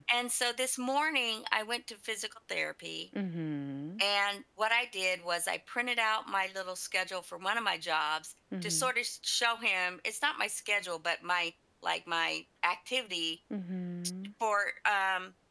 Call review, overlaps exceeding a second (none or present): none